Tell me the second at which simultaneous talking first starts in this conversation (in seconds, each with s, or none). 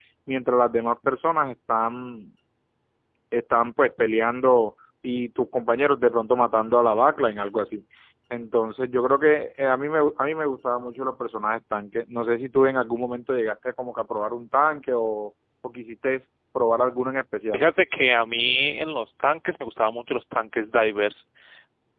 none